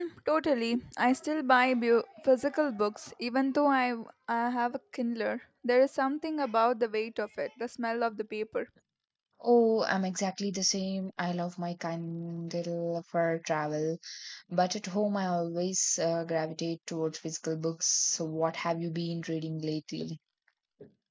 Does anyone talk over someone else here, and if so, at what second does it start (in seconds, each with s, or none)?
none